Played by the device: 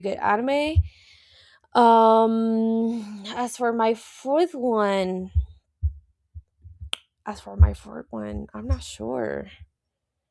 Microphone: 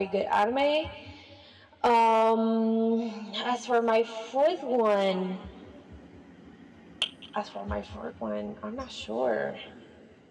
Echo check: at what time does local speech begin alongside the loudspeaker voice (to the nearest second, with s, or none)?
none